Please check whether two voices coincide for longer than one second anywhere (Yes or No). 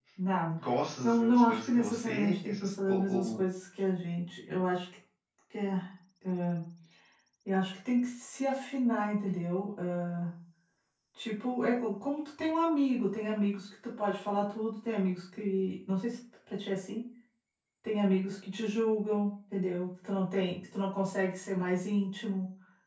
Yes